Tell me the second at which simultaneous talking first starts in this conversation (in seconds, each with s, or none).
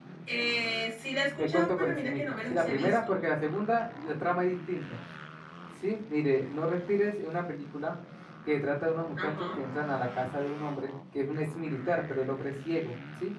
1.4 s